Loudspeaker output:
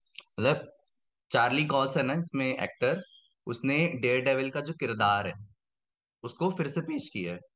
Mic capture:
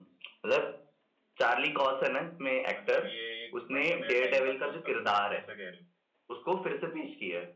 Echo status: present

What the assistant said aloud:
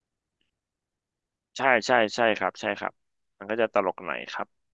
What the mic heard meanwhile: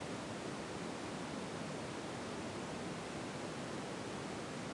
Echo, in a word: none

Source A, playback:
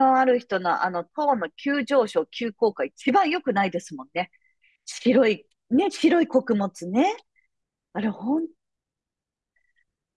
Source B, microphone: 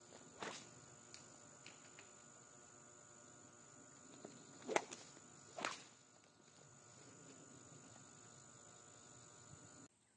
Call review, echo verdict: none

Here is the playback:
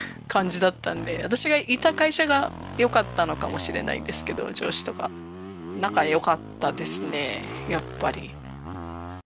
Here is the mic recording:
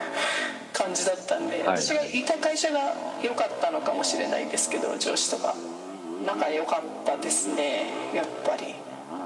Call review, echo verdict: present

